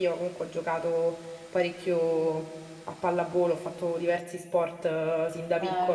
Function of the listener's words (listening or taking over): listening